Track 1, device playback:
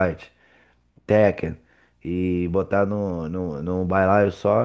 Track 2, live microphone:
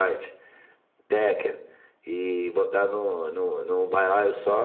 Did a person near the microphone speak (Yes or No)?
No